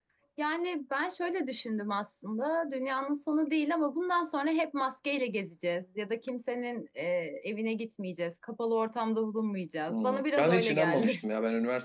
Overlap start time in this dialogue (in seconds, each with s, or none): 9.9 s